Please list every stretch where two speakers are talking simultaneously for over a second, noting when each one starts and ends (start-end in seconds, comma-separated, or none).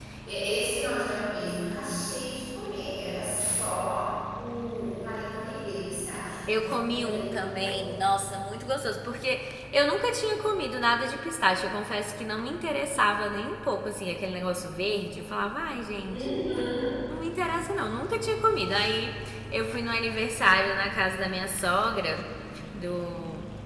6.5-7.8